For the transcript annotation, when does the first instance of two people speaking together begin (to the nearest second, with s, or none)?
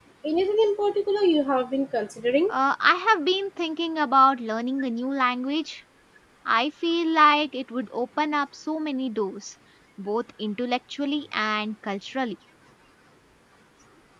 none